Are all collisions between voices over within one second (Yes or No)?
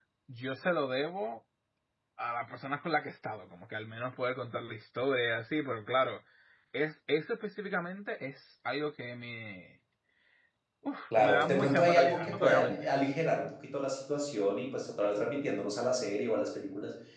No